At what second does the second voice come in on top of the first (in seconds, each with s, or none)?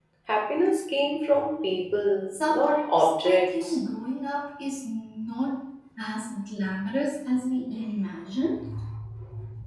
2.3 s